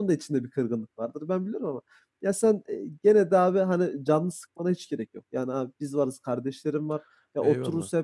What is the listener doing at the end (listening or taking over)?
listening